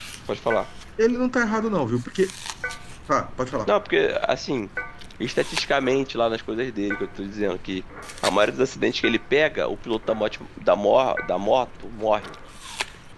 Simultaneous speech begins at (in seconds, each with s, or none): none